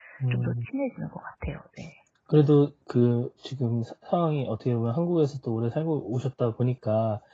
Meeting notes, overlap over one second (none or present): none